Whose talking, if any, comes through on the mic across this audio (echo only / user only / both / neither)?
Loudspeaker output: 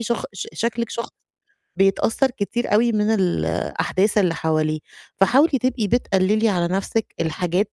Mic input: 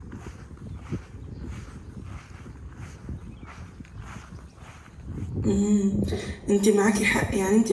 user only